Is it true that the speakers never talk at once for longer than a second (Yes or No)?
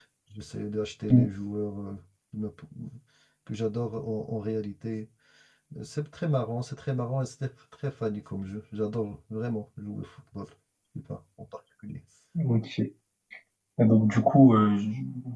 Yes